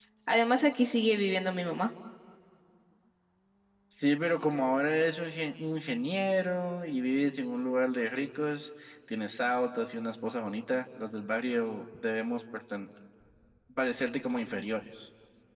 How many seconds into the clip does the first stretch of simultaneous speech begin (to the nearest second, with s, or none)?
none